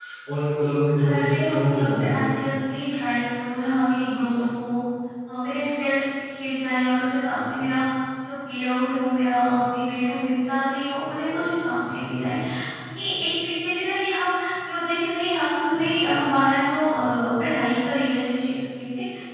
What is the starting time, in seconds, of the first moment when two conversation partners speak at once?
0.9 s

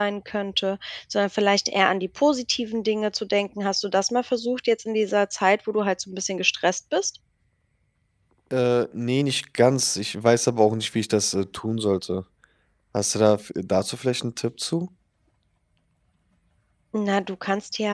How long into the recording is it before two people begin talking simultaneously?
none

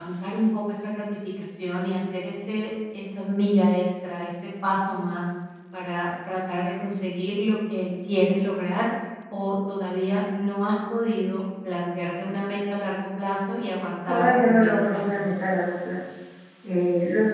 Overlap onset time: 14.1 s

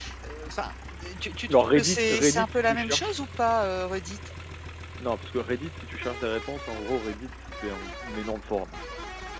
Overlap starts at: 1.5 s

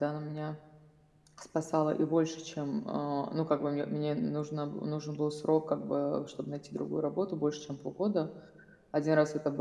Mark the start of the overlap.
none

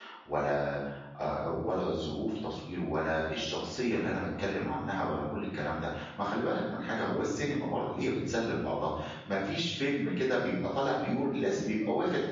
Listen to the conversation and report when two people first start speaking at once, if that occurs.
none

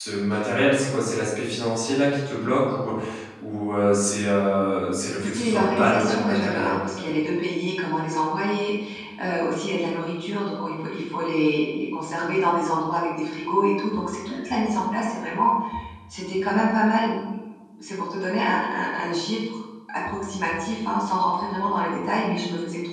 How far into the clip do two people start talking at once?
5.2 s

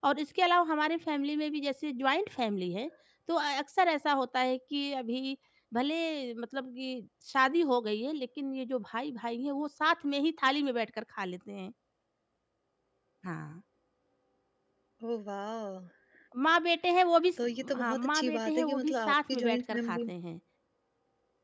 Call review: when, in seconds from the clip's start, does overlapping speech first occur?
17.6 s

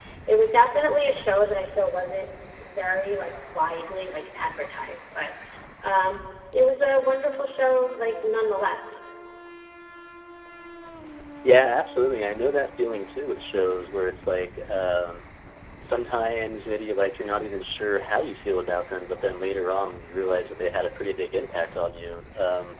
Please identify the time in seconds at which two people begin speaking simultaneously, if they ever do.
none

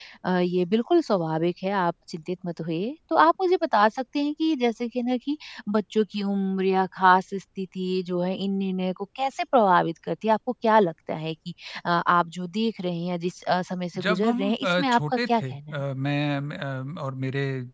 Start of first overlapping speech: 13.9 s

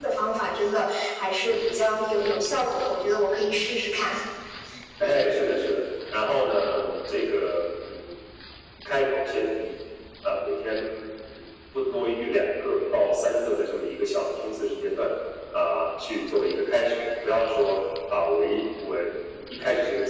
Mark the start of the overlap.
none

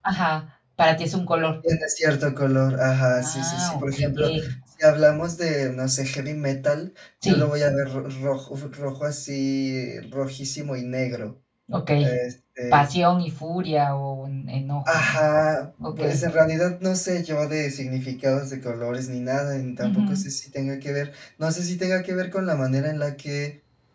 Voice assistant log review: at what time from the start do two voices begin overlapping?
3.3 s

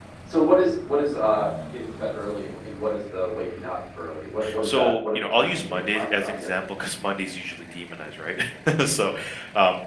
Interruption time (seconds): 4.4 s

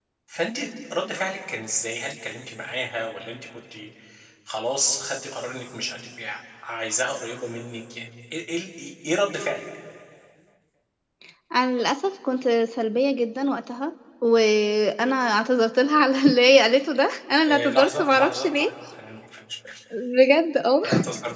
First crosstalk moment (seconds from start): 17.5 s

